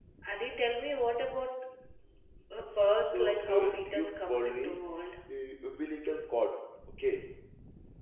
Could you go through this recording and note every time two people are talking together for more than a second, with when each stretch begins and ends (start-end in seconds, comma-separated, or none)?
3.1-4.8